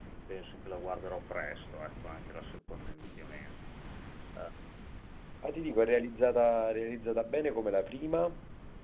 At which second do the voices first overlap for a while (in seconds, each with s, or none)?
none